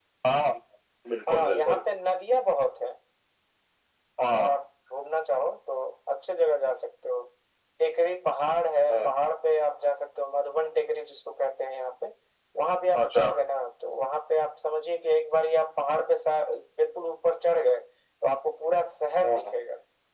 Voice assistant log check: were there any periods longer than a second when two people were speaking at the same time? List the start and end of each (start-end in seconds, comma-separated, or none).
none